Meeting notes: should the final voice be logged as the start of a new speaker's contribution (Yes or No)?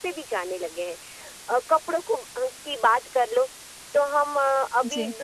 No